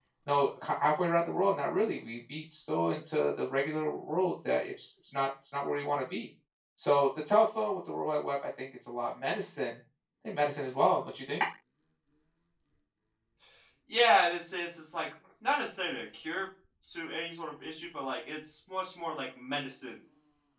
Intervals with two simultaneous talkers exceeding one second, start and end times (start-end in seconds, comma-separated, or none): none